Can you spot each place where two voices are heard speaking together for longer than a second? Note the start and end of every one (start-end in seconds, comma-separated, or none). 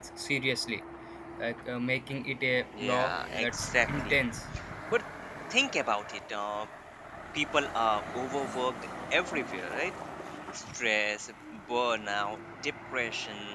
2.8-4.2